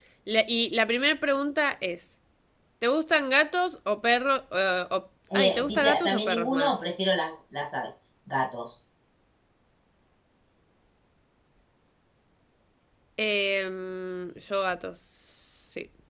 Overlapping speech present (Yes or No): Yes